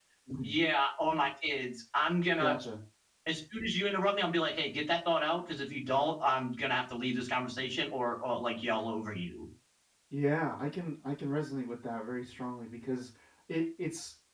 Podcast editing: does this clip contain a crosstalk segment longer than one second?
No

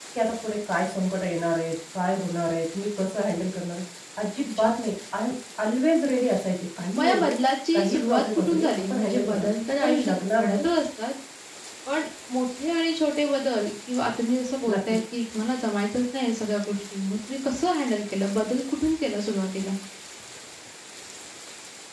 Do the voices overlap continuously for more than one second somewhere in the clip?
Yes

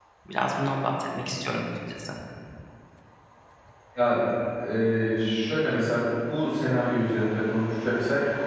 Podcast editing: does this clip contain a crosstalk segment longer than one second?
No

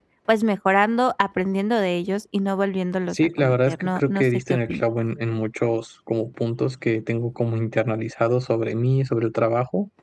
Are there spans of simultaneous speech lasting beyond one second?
Yes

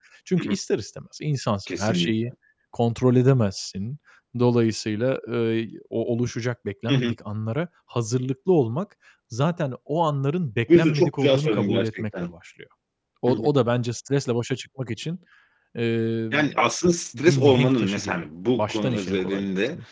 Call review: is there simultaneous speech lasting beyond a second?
Yes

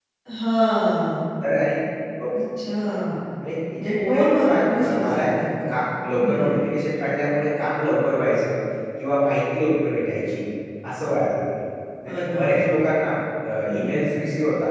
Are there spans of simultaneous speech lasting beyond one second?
Yes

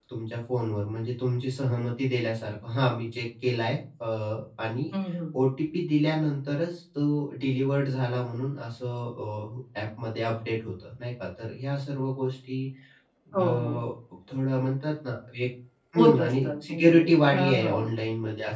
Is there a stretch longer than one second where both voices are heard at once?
Yes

